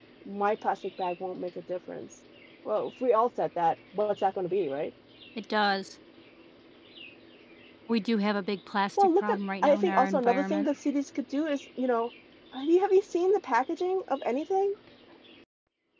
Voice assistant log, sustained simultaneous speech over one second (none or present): present